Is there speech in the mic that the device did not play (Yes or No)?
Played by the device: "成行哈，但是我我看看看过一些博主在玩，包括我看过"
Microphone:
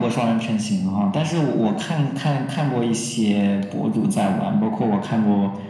No